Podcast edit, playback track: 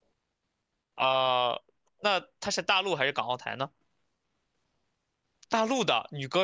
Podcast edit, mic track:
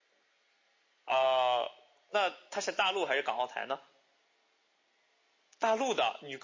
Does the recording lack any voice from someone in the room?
Yes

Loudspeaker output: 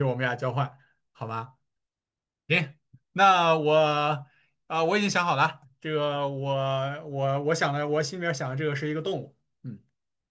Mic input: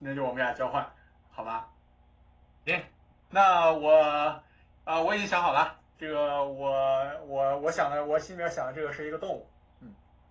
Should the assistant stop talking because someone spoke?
No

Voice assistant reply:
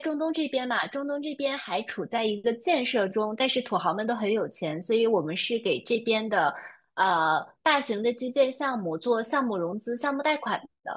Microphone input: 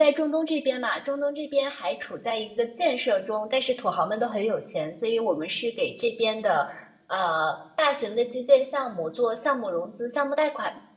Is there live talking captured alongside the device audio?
No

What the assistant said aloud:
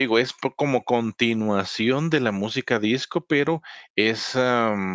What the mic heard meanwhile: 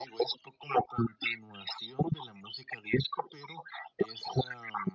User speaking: No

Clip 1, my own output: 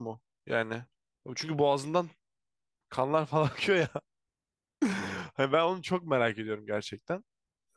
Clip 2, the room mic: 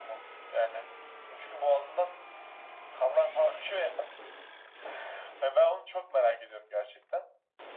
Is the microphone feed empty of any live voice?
Yes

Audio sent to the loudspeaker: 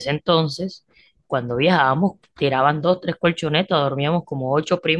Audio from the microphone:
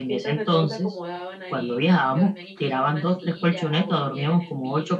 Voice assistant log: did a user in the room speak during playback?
Yes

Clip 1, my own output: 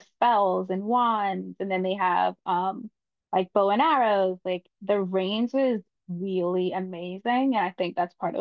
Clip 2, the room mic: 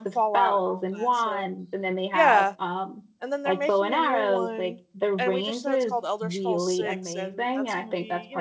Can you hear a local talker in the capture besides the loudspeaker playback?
Yes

